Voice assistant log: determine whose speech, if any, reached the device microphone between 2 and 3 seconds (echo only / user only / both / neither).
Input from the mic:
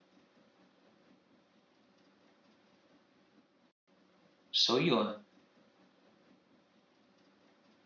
neither